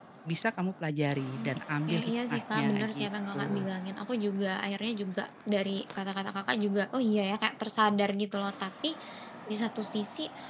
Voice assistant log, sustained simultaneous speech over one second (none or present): present